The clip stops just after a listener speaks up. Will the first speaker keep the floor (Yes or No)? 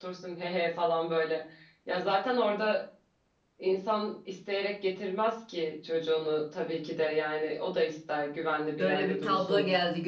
No